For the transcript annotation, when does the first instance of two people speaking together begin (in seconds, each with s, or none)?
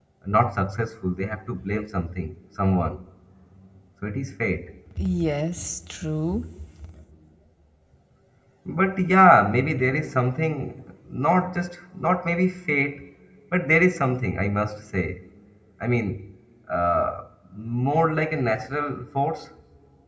none